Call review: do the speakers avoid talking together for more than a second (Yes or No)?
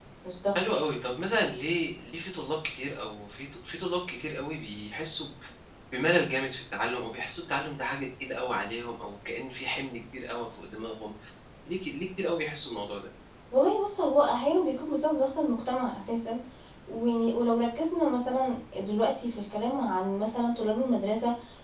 Yes